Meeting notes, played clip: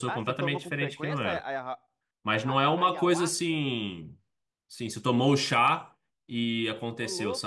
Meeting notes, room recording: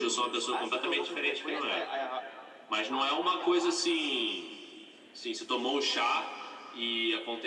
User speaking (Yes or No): No